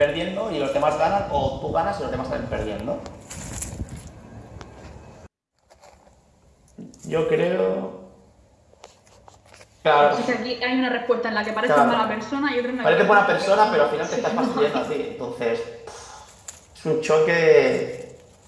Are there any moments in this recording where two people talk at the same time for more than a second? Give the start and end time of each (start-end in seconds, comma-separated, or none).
12.8-14.9